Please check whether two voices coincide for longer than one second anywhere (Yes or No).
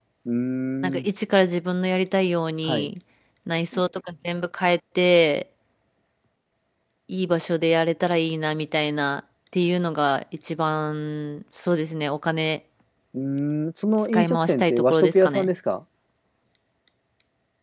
Yes